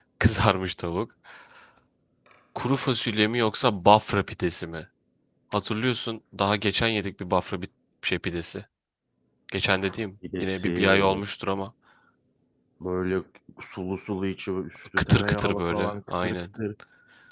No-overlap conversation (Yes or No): No